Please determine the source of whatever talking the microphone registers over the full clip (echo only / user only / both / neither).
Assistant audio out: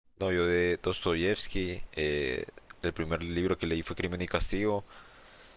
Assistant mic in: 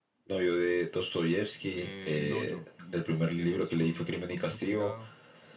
both